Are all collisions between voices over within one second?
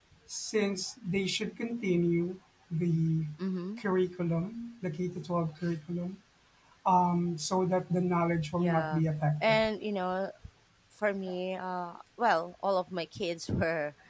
Yes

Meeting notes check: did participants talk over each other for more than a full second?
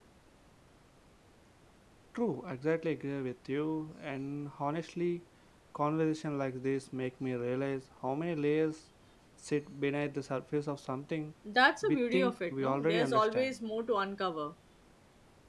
Yes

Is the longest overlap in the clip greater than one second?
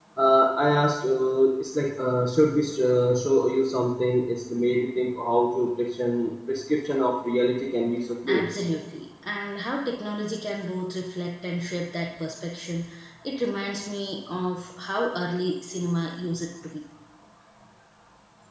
No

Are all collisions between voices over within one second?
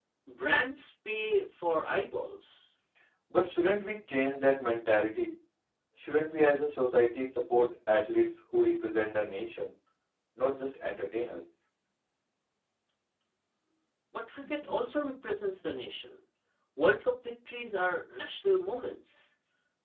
Yes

